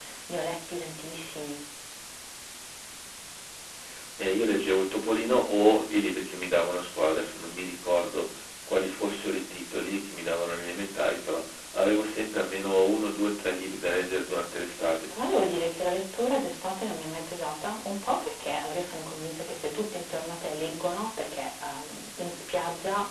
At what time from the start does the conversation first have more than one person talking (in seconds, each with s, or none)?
none